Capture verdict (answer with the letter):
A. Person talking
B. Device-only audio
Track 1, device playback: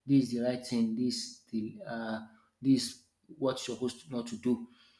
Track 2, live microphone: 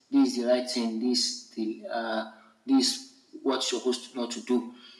B